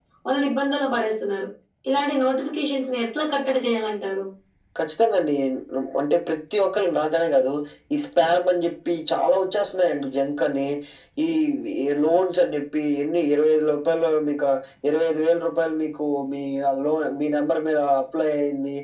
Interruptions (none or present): none